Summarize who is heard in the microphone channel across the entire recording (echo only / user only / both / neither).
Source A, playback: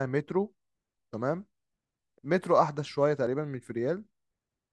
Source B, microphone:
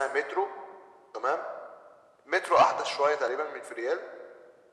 echo only